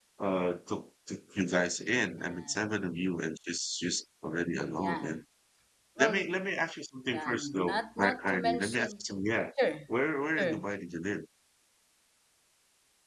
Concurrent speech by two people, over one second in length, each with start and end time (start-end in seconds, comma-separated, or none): 7.1-9.0